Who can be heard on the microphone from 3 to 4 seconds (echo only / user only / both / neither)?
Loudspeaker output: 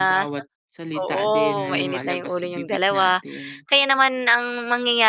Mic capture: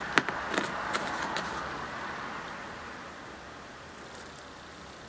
neither